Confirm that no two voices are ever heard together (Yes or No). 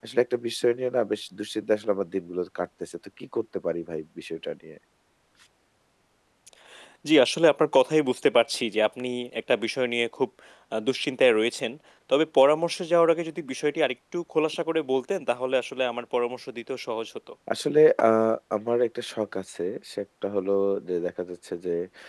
Yes